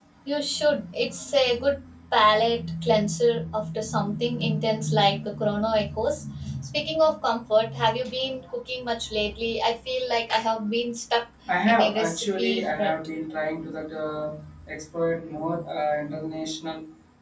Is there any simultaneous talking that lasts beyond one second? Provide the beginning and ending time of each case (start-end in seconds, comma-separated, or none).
11.7-12.9